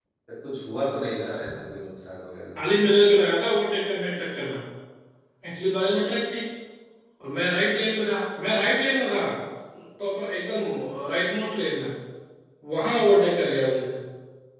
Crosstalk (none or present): none